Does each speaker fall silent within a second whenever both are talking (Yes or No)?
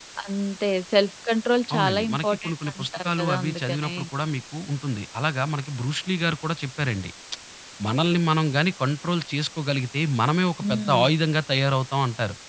No